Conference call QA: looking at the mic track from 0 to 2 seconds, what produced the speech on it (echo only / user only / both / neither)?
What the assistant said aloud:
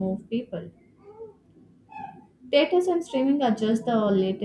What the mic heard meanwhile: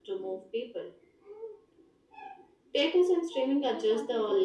echo only